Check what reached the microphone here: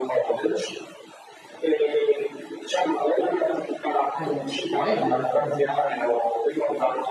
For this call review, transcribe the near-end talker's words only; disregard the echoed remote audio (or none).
Eh, ci credo. Mh-mh.